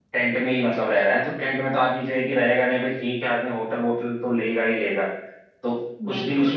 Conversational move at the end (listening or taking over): listening